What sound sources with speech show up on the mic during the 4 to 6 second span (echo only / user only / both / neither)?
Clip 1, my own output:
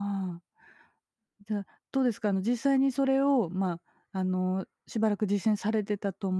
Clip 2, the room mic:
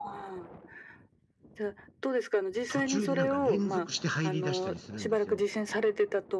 both